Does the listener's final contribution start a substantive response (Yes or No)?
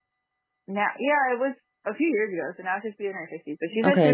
Yes